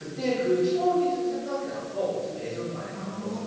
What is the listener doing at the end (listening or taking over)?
taking over